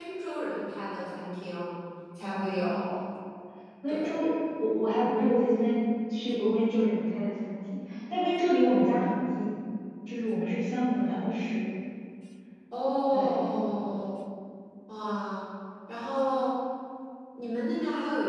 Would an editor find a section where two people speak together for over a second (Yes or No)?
No